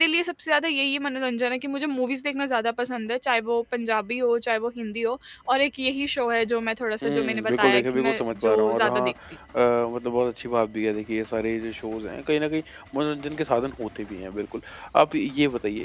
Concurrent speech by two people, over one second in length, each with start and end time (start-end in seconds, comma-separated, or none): 7.0-9.1